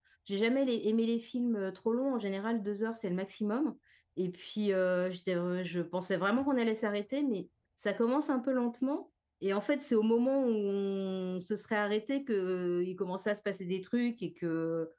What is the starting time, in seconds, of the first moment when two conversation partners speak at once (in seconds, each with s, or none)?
none